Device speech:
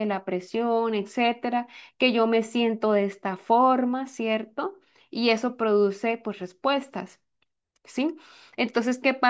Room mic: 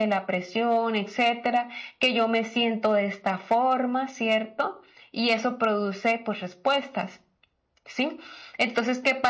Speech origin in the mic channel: echo only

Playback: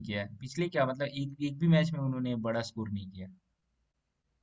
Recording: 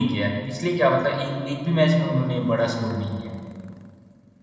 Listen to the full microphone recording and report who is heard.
echo only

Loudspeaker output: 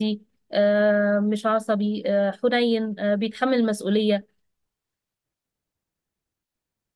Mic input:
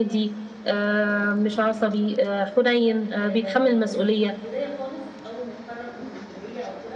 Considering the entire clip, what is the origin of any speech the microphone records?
both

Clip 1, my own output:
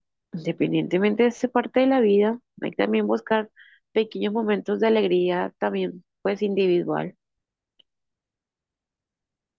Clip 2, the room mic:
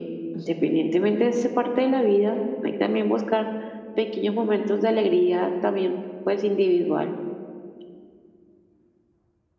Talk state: echo only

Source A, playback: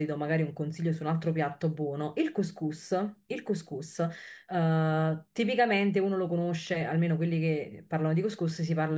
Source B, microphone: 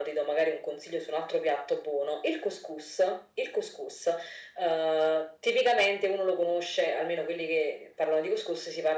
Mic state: echo only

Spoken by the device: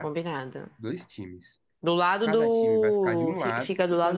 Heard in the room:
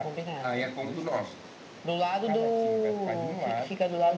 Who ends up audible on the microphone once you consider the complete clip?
both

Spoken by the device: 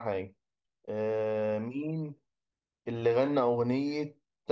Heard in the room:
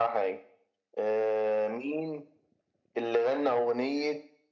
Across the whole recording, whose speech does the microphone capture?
echo only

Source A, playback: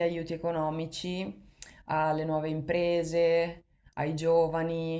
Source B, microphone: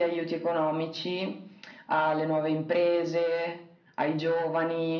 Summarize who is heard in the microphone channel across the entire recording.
echo only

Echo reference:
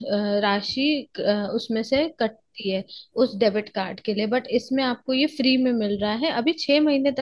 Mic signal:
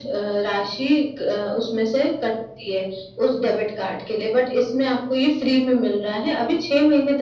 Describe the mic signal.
echo only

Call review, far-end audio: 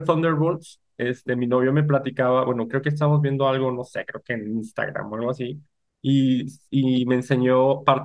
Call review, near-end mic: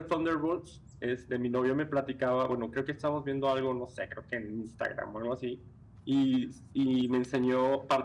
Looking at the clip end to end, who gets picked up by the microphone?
echo only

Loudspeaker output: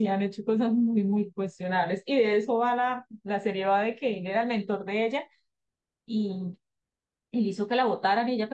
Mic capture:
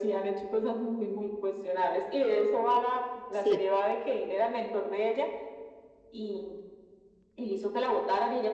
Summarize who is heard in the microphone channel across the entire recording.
both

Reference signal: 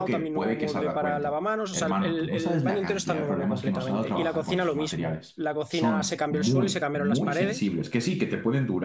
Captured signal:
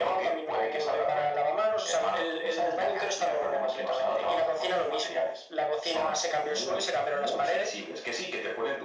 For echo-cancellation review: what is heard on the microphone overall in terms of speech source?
echo only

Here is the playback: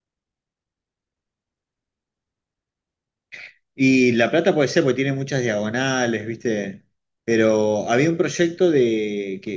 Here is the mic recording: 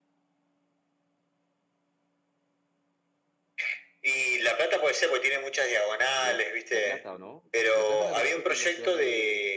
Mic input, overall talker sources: both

